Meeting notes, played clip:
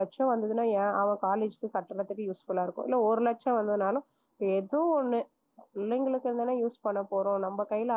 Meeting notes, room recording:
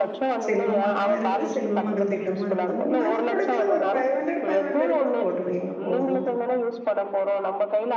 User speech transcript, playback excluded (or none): செல்வமகனு இரு க்குது செல்வமகள் திட்டமு இருக்குது உங்களால முடுஞ்சது ஒரு ஃபைவ் ஹன்ட்ரடு ஃபைவ்ஹன்ட்ரடு கூட போட்டுவைங்க போது